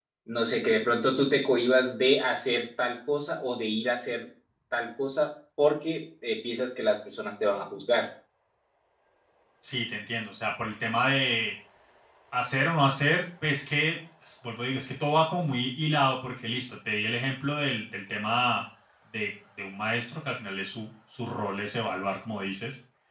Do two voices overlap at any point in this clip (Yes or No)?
No